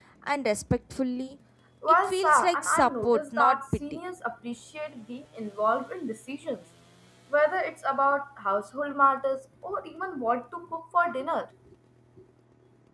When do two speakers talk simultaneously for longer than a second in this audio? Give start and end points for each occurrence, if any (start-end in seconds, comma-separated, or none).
2.0-3.8